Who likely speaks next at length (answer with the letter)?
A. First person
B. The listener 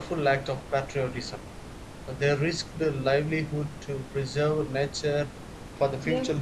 B